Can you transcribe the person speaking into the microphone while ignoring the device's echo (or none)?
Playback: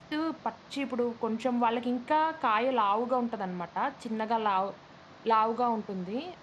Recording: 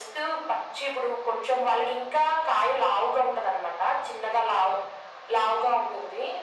none